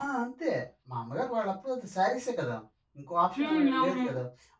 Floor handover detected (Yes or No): No